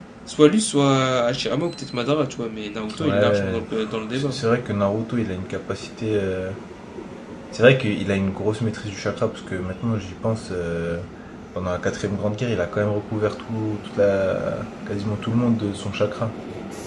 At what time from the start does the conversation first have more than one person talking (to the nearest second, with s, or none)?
3 s